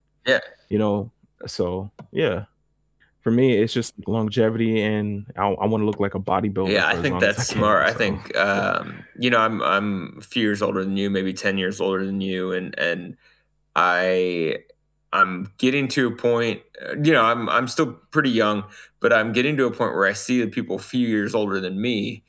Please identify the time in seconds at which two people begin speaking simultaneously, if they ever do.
6.6 s

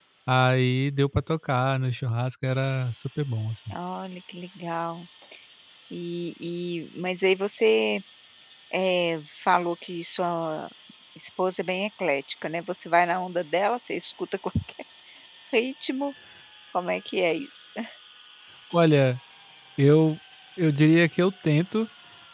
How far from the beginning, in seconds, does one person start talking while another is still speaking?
none

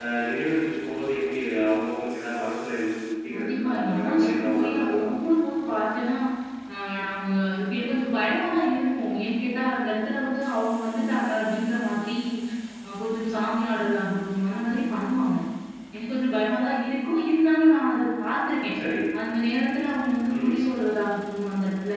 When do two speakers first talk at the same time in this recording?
3.3 s

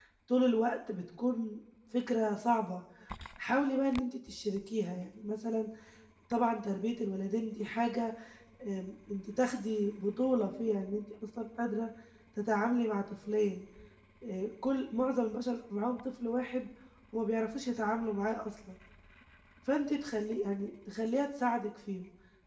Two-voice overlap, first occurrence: none

